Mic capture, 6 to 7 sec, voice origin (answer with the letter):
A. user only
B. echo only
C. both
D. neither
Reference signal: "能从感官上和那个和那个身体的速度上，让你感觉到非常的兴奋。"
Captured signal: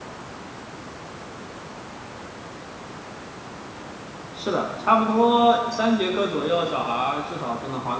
A